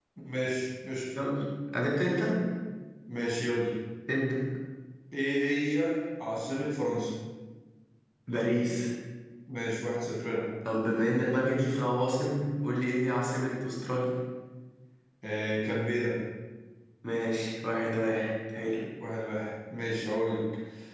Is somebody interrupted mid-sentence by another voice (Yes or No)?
No